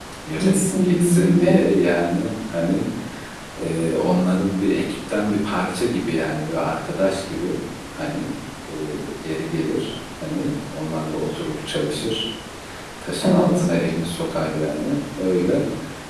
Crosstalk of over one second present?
Yes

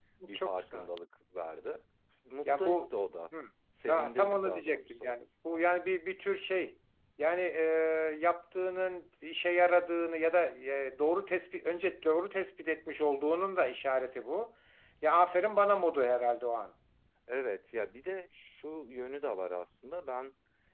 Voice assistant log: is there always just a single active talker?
No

